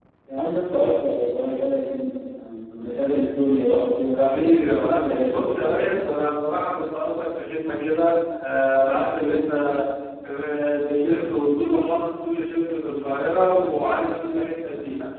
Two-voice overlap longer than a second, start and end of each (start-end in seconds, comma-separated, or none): 4.1-6.0